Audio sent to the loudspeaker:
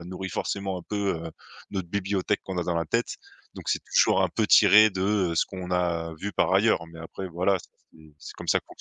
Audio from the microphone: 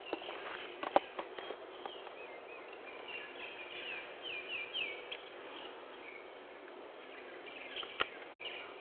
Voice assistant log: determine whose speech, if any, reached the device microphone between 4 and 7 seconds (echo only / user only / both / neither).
neither